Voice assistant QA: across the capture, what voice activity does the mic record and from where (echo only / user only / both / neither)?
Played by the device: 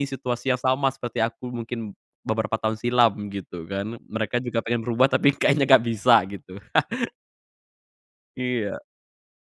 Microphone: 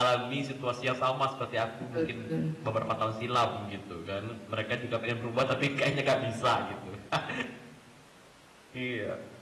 both